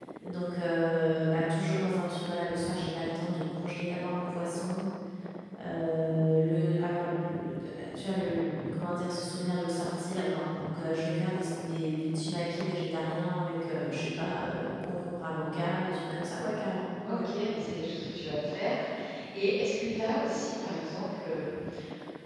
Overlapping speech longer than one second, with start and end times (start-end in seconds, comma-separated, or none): none